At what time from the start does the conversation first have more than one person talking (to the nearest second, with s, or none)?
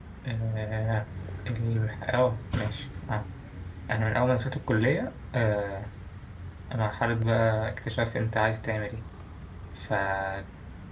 none